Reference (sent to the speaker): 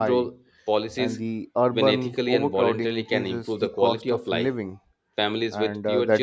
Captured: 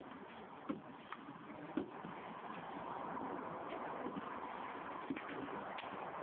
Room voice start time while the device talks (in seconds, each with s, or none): none